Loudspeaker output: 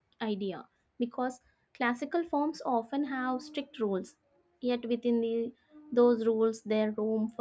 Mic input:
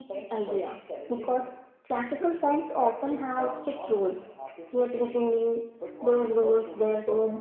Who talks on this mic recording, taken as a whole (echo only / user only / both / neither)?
both